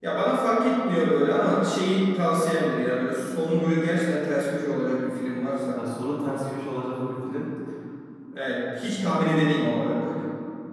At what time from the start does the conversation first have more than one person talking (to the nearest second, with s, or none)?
none